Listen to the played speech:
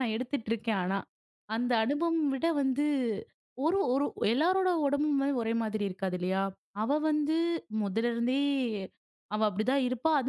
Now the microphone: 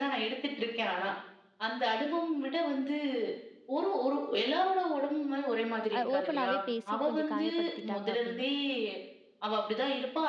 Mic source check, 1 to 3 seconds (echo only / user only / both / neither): echo only